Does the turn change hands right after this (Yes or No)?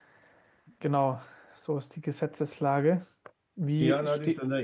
Yes